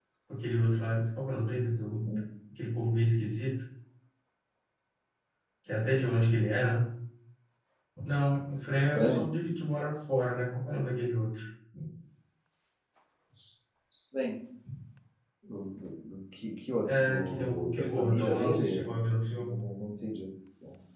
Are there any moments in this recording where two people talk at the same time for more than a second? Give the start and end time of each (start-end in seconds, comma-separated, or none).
16.9-18.8